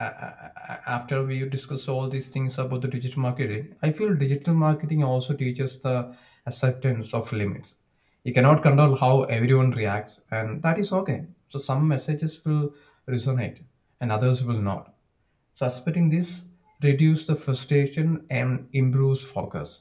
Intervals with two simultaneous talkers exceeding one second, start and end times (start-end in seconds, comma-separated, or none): none